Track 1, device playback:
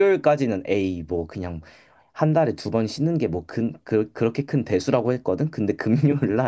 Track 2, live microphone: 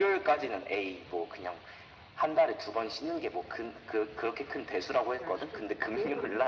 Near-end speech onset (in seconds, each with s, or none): 5.2 s